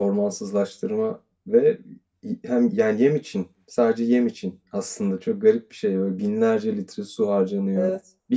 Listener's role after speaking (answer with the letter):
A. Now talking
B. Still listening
B